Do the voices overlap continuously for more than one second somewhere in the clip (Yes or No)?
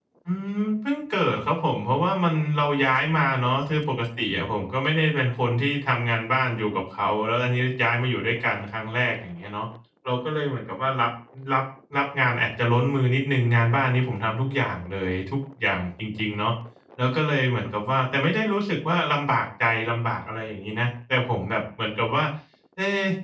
No